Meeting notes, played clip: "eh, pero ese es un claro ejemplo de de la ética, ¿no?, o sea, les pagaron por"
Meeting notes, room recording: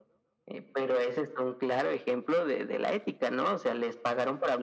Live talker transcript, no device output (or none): none